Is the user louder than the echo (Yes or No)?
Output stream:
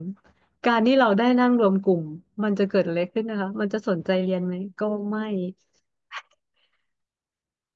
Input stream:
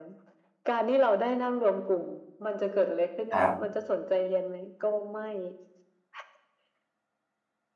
Yes